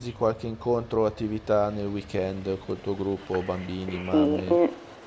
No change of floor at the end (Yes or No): No